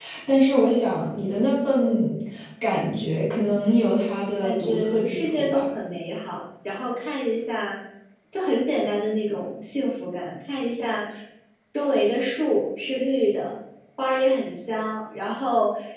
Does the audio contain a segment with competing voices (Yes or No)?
Yes